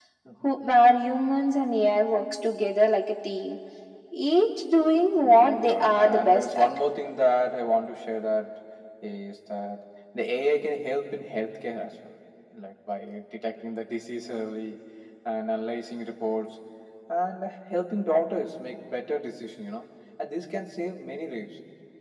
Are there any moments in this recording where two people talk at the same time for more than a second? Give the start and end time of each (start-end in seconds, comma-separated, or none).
5.2-6.7